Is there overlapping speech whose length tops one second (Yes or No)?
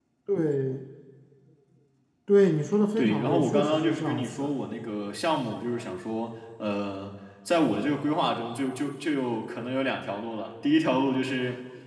Yes